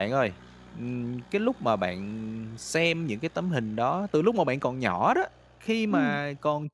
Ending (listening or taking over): listening